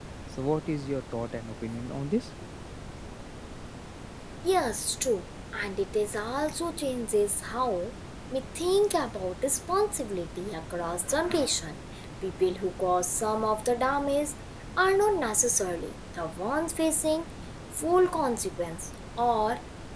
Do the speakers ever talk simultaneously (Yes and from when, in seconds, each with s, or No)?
No